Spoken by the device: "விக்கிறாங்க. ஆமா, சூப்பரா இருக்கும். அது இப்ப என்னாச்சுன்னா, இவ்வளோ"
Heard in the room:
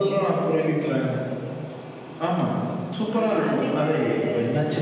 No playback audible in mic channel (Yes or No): No